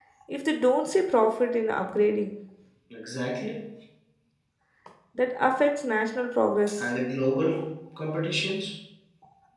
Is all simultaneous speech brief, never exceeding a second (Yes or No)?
Yes